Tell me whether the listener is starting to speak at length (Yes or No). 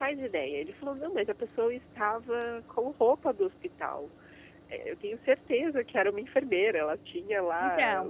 Yes